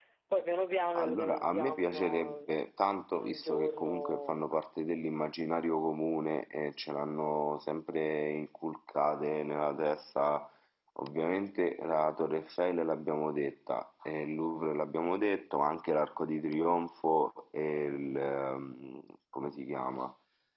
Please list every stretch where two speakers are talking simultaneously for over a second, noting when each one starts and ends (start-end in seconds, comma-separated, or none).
0.9-2.5, 3.1-4.4